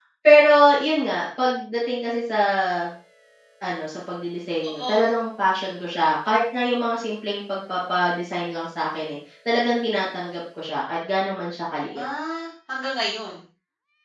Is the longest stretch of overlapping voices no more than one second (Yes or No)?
Yes